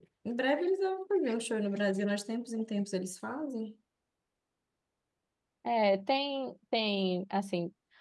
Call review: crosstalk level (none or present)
none